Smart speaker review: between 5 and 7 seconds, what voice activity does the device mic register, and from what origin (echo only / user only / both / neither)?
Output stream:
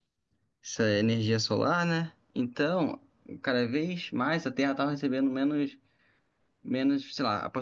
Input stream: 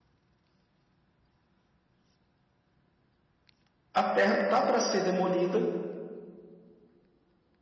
user only